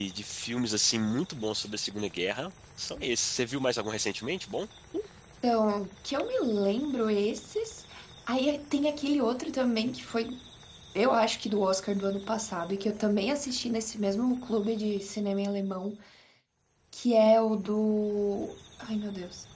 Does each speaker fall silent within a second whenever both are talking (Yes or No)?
Yes